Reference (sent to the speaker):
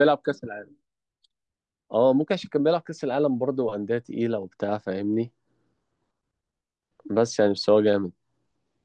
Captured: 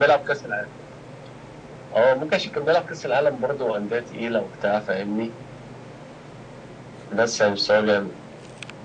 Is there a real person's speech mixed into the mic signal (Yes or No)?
No